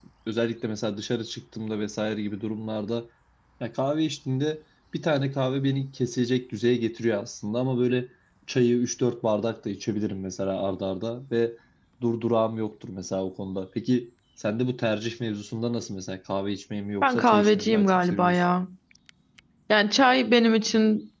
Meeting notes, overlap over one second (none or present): present